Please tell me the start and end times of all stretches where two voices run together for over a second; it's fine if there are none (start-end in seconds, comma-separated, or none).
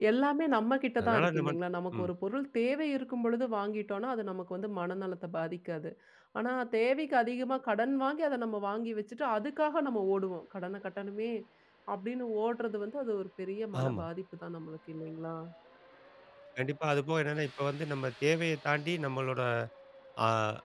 none